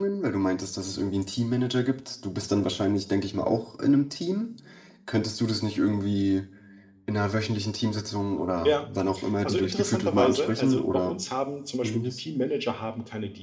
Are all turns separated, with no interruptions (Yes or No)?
No